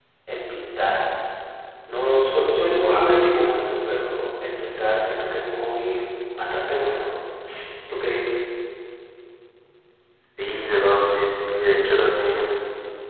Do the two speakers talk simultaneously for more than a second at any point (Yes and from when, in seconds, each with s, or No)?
No